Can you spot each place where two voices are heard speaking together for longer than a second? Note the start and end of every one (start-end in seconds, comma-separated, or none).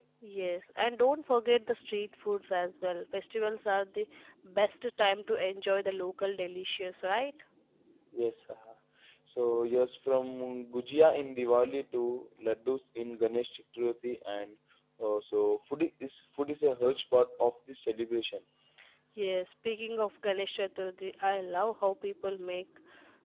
none